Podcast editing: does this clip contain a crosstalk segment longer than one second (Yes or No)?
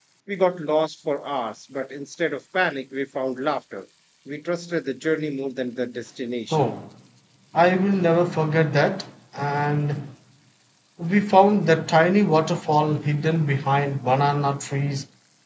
No